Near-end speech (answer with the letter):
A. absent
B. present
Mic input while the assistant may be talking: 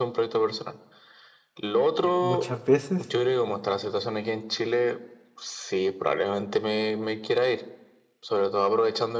B